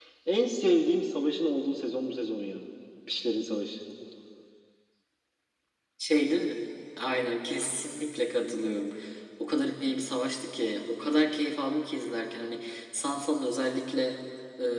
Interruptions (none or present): none